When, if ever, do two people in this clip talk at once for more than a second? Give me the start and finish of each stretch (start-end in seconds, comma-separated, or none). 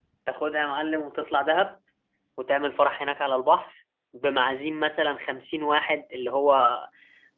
none